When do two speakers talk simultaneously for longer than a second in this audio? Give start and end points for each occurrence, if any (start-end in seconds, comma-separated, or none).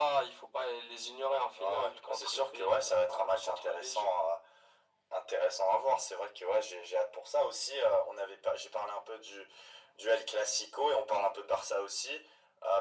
1.6-4.1